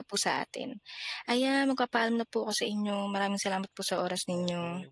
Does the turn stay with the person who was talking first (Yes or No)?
No